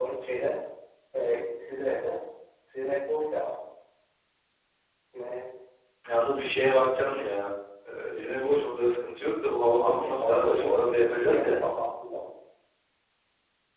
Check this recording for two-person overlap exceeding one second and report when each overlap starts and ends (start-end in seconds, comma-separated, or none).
9.8-11.6